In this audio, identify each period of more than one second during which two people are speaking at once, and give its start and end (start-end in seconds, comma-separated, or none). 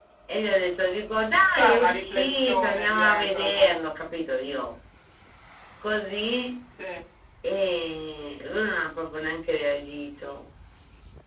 1.5-3.9